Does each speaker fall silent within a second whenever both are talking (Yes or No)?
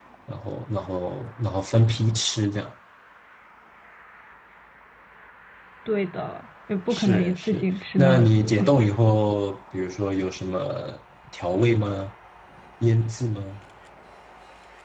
No